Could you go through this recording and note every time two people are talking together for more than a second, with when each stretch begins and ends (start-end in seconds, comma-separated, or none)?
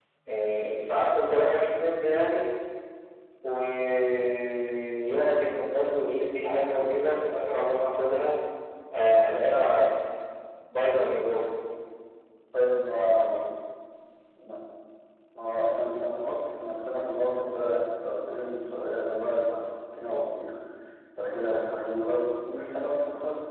none